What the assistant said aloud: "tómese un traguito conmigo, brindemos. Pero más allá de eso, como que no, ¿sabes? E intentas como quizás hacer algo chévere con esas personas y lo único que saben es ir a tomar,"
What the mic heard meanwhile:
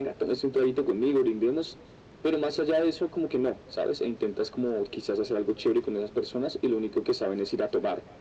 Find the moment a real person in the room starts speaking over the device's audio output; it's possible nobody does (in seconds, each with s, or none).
none